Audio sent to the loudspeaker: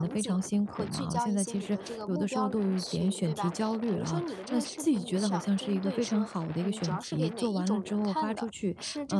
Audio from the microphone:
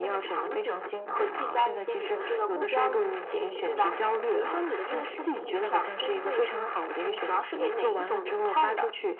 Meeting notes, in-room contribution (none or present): present